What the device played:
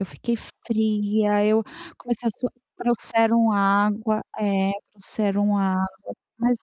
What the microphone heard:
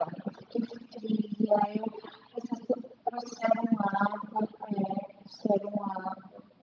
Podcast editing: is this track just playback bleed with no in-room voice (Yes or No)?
Yes